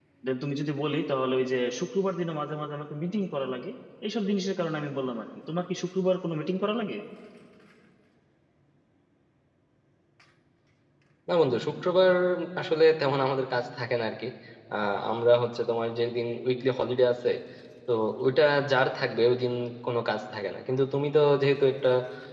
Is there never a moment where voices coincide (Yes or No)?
Yes